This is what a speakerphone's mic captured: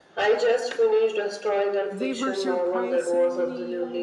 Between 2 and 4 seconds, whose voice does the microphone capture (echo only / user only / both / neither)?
both